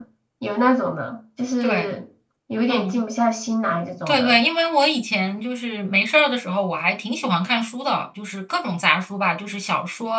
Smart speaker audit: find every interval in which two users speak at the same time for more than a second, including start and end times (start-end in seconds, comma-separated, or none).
none